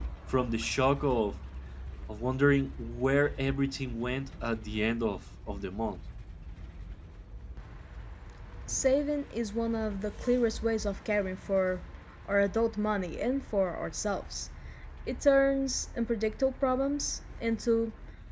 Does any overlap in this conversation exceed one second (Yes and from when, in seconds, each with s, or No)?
No